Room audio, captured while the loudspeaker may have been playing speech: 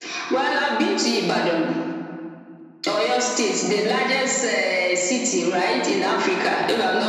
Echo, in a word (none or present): present